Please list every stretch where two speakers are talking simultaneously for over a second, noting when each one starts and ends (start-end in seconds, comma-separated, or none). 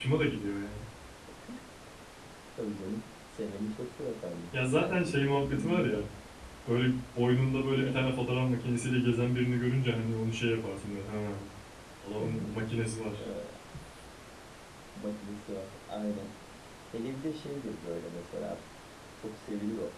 4.8-6.0